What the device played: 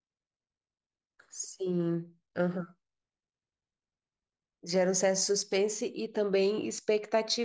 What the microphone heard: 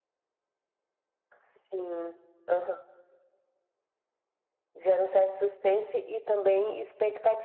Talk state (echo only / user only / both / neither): echo only